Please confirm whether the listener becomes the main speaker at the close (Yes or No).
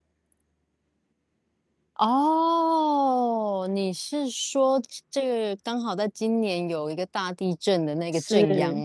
Yes